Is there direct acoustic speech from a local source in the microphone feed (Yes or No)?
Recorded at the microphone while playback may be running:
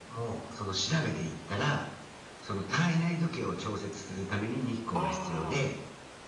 Yes